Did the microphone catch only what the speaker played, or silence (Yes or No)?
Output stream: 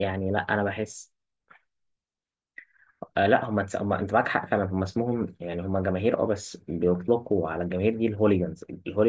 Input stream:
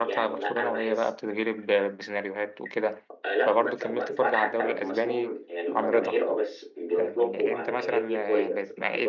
No